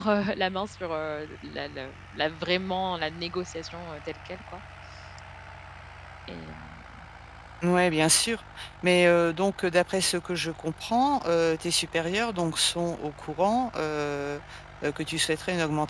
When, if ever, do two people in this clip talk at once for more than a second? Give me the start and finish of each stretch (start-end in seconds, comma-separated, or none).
none